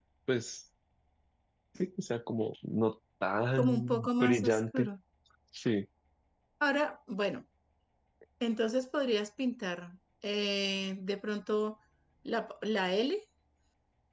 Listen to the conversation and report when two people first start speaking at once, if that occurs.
3.6 s

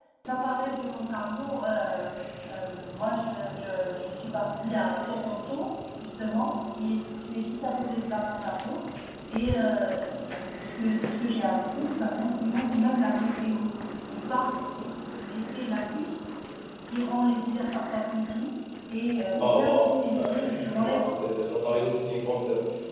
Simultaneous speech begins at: 19.4 s

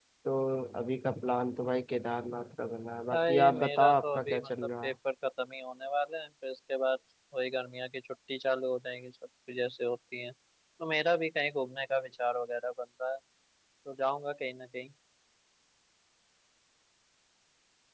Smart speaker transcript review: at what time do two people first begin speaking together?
3.1 s

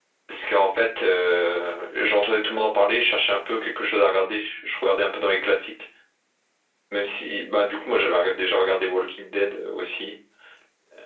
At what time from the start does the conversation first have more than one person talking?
none

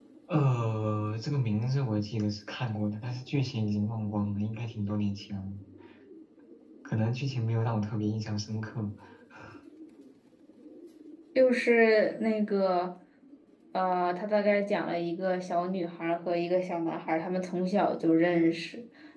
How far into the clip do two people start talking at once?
none

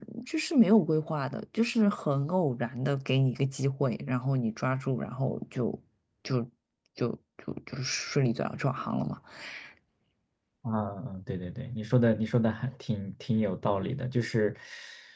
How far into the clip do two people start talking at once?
none

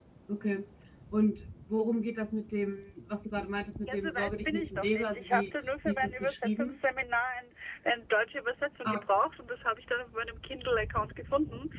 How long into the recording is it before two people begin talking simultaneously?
3.9 s

